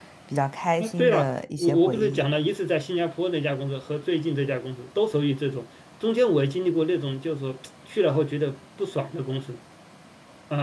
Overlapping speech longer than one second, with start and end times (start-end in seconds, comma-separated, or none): 0.8-2.3